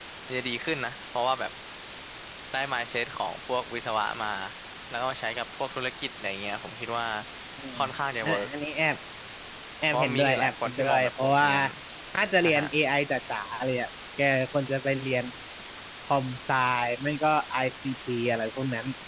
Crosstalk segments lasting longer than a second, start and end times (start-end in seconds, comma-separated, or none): 9.9-11.5